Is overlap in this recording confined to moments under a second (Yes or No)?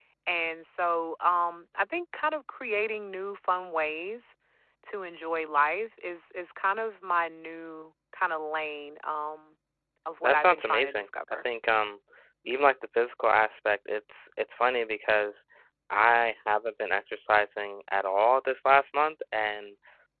No